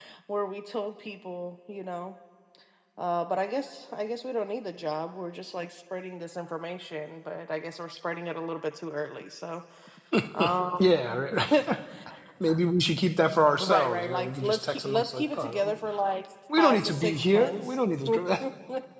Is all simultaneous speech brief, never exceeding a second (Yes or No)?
No